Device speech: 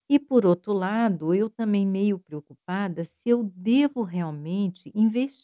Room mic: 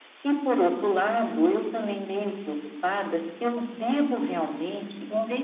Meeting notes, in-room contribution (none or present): none